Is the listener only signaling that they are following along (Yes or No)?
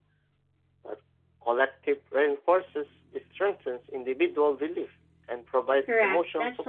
No